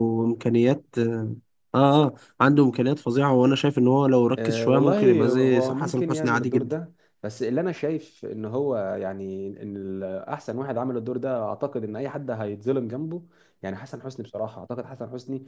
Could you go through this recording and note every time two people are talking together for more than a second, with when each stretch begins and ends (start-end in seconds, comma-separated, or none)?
4.5-6.7